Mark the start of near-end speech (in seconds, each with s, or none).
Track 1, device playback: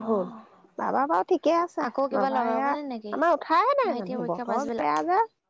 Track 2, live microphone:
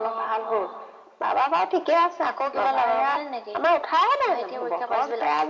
none